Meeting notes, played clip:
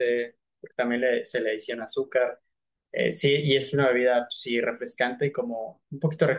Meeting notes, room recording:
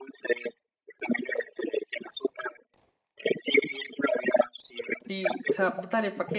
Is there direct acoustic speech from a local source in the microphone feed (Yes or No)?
Yes